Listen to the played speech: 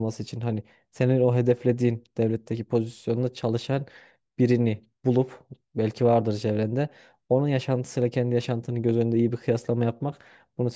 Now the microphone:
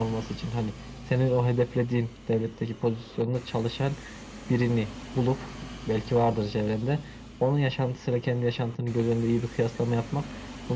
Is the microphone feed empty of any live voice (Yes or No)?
Yes